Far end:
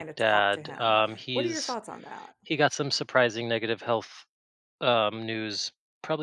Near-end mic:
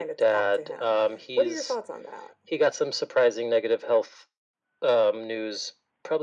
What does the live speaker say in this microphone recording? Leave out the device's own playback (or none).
none